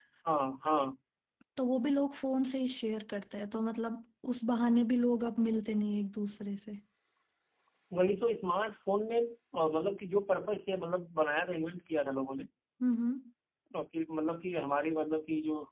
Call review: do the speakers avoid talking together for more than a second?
Yes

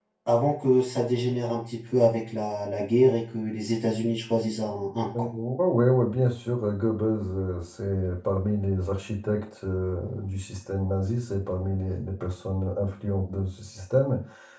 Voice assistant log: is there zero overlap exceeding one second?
Yes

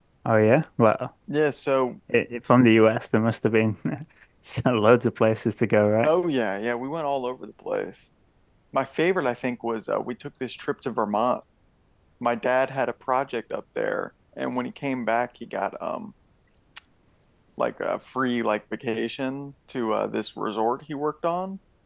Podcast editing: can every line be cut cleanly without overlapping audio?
Yes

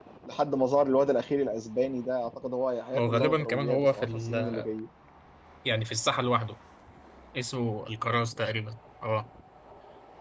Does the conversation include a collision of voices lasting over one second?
Yes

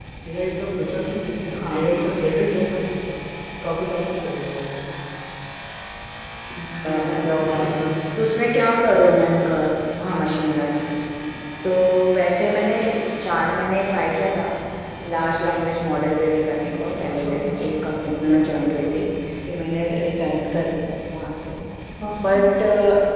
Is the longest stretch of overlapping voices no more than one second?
No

